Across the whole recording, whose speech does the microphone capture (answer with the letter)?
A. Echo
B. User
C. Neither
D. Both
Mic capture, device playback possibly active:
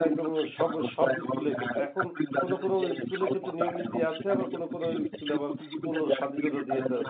D